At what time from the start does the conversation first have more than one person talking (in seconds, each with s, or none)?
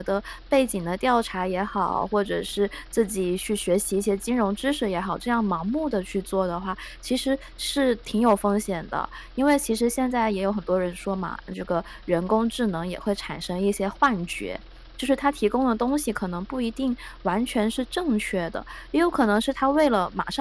none